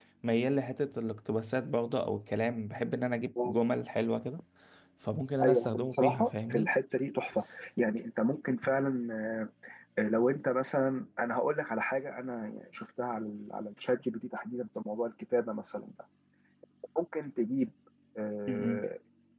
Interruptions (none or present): present